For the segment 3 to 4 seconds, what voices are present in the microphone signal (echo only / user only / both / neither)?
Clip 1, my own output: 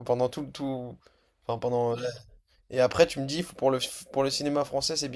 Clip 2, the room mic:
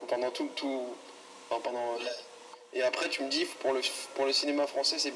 echo only